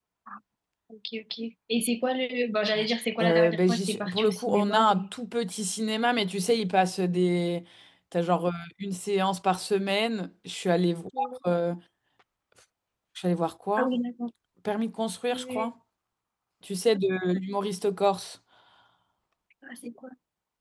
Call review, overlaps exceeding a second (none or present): present